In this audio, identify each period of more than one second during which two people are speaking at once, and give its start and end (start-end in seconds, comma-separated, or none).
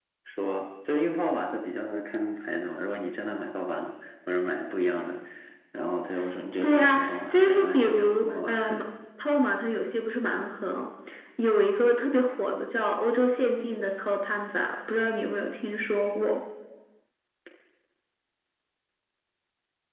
6.6-8.8